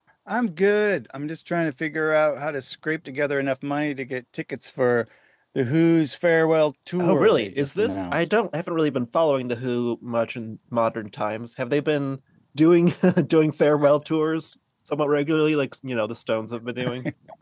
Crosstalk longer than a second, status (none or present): present